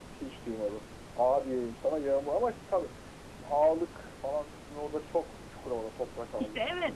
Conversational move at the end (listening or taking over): taking over